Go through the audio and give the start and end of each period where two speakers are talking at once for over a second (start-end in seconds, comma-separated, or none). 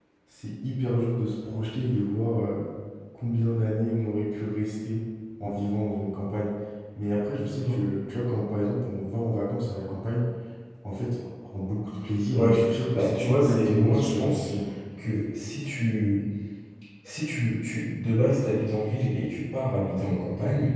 12.9-14.5